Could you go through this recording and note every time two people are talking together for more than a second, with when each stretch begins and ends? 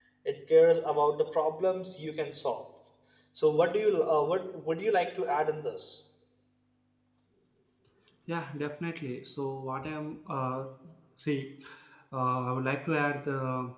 none

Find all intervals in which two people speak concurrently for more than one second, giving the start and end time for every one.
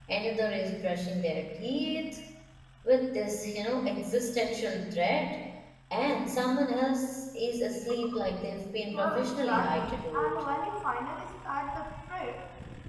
8.9-10.4

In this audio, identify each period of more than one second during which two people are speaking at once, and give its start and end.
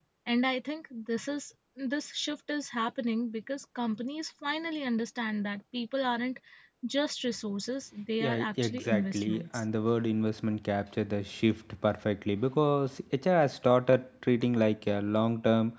8.2-9.6

